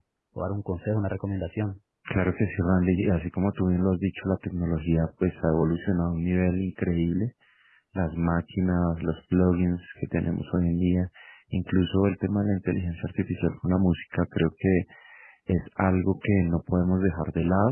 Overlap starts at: none

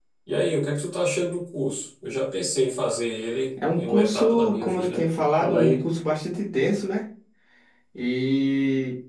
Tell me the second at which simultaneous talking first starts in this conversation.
3.6 s

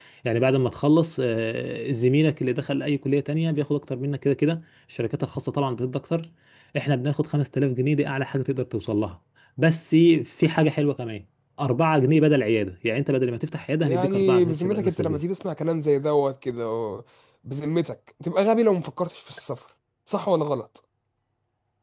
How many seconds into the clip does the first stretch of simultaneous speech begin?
13.8 s

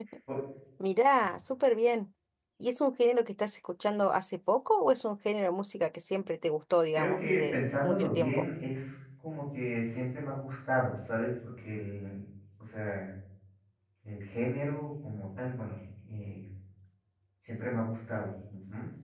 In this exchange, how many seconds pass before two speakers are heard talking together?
7.0 s

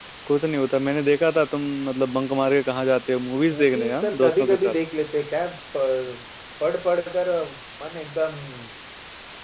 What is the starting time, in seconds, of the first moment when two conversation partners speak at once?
3.5 s

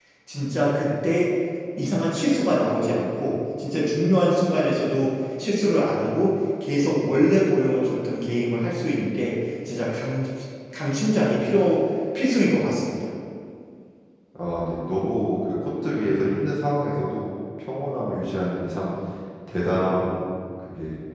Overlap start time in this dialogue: none

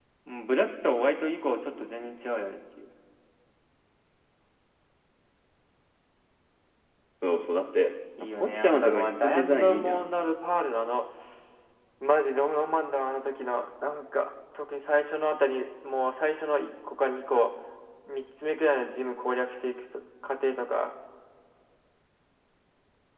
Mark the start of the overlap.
8.4 s

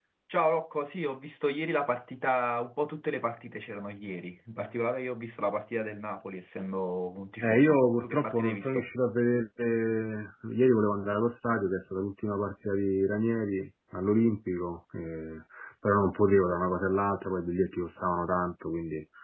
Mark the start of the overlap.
7.4 s

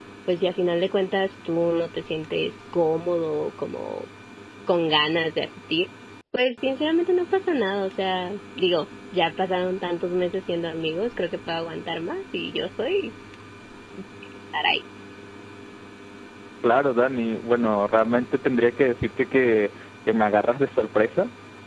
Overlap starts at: none

